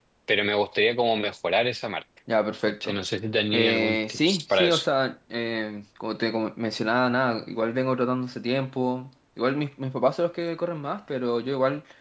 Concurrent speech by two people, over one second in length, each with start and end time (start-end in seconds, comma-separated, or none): 3.5-4.9